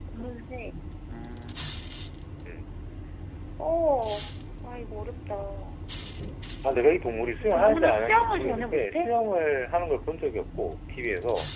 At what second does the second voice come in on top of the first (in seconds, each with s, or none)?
7.4 s